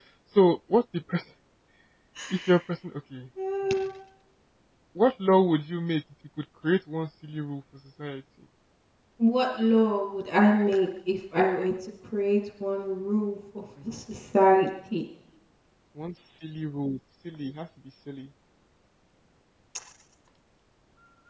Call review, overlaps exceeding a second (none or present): none